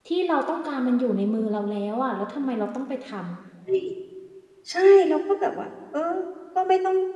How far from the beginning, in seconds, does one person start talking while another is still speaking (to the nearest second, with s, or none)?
none